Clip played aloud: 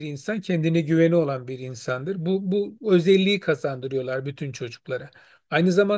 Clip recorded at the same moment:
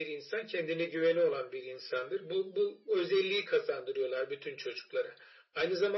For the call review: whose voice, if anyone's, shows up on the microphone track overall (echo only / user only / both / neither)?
echo only